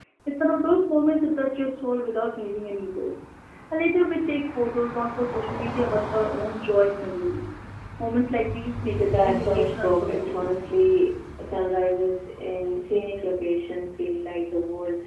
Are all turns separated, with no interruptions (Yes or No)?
No